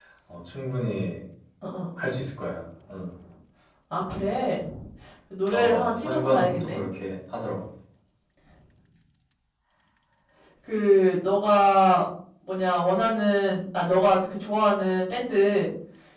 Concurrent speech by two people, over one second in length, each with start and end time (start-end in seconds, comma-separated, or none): 5.5-6.8